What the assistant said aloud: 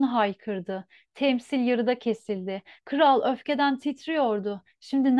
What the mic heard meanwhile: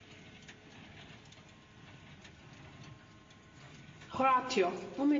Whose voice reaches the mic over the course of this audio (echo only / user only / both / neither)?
user only